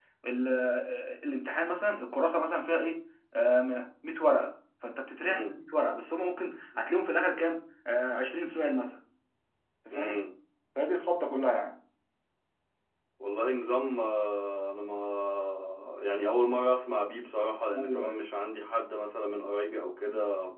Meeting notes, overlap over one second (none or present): none